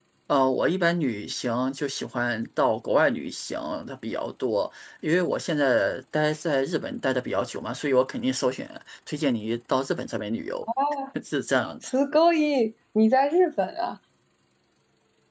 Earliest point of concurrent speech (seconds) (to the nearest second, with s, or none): none